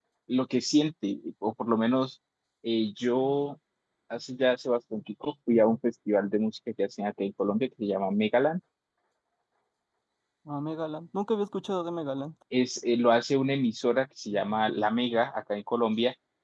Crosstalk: none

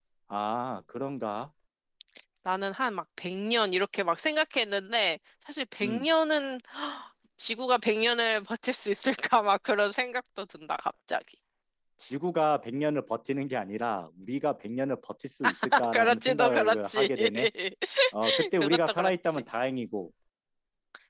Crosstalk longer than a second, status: present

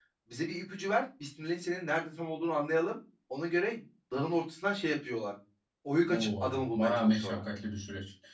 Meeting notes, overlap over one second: present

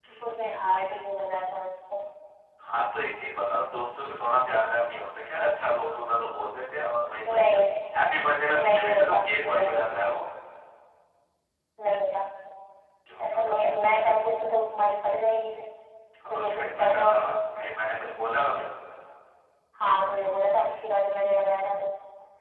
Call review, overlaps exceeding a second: present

